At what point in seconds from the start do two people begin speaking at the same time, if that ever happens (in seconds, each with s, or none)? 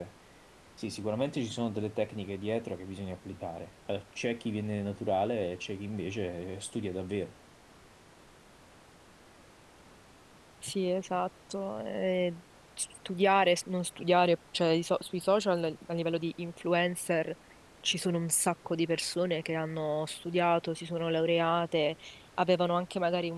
none